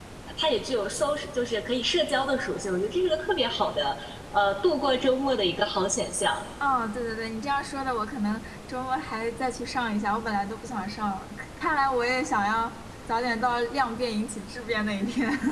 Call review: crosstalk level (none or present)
none